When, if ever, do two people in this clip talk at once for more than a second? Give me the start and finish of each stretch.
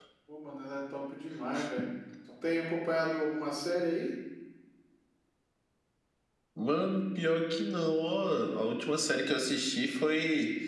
none

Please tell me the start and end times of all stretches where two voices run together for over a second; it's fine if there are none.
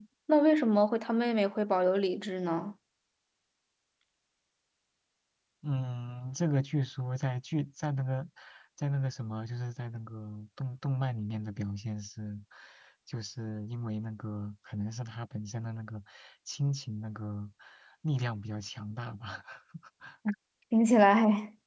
none

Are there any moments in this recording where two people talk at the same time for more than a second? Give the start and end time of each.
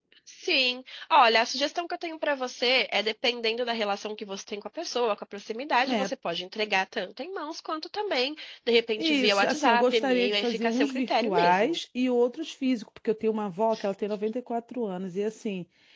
9.0-11.7

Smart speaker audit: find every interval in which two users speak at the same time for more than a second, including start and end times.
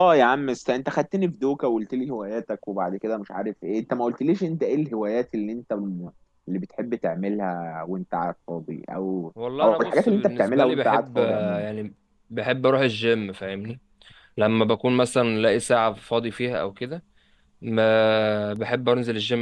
9.6-11.7

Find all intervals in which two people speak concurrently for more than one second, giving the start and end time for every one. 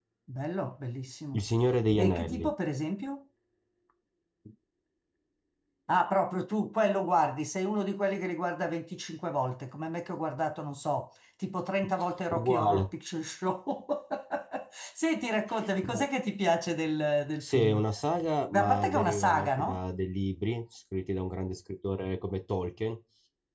18.5-19.8

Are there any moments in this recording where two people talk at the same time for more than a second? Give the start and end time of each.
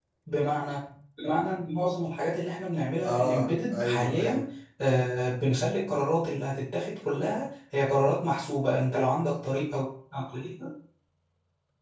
3.0-4.4

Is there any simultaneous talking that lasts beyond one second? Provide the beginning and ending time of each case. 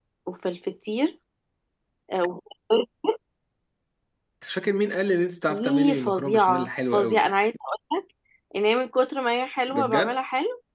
5.5-7.3

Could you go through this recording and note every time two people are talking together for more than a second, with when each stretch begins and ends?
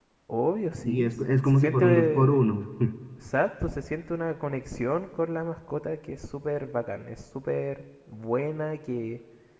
0.8-2.3

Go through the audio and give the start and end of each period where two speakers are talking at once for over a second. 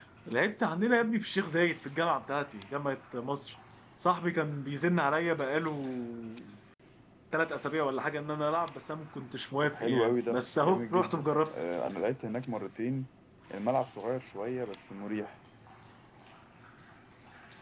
9.6-11.6

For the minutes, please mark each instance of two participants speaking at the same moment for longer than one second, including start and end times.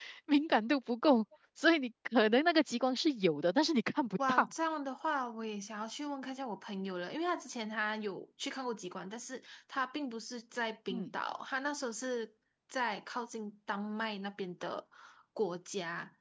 none

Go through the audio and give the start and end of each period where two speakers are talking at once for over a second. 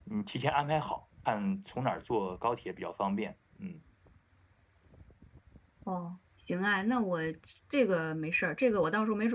none

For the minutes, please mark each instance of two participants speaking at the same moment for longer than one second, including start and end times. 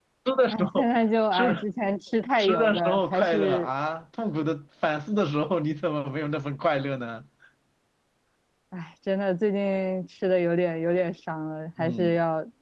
2.4-3.7

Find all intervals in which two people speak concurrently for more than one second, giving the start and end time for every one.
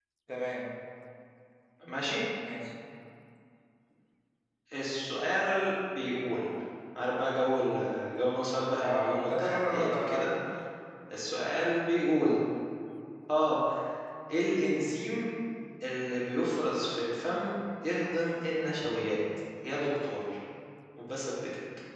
8.8-10.2

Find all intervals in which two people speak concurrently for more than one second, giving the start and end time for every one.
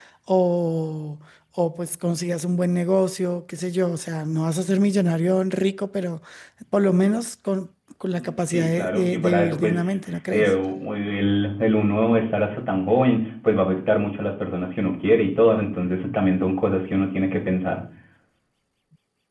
8.2-9.7

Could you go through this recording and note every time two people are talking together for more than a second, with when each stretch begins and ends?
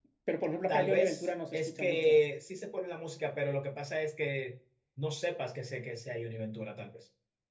0.7-2.2

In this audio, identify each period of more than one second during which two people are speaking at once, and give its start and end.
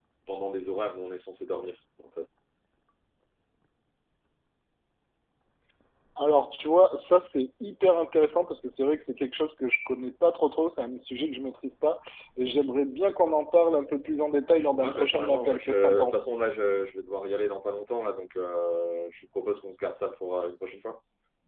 14.8-16.2

